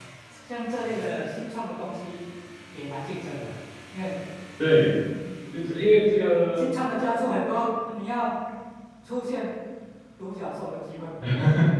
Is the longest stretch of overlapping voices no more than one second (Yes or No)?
Yes